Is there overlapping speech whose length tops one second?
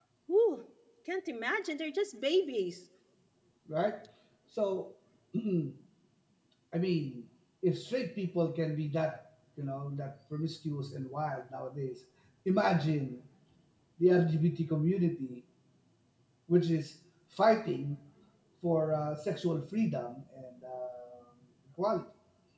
No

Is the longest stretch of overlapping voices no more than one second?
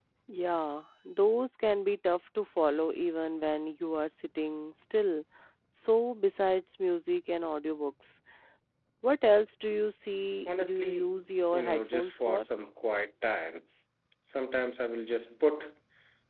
No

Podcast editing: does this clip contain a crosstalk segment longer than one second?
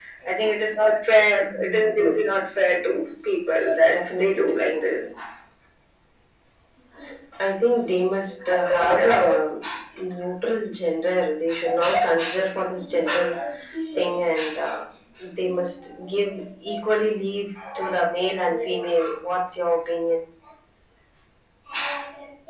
Yes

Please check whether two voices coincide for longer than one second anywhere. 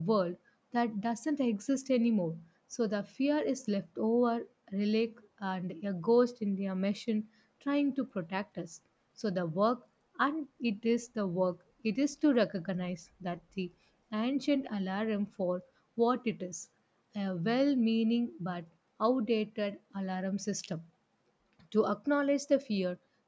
No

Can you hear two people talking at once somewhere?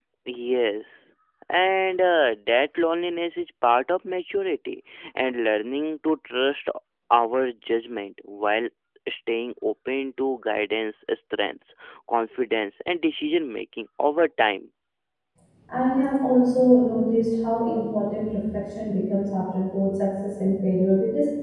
No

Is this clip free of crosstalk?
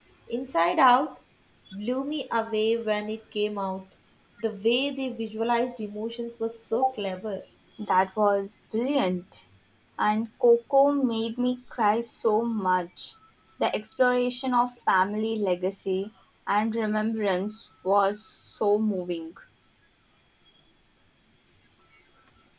Yes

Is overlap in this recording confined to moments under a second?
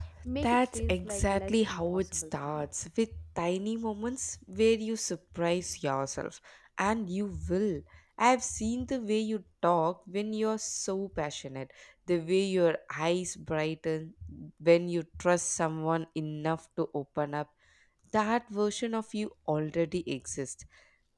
No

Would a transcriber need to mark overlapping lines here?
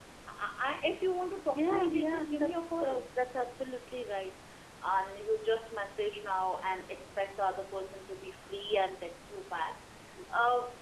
Yes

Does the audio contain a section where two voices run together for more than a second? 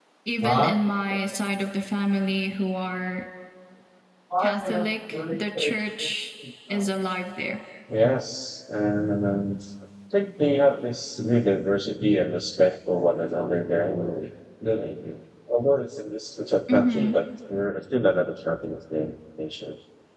Yes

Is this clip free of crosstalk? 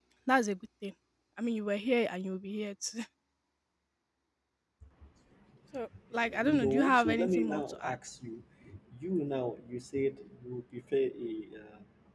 No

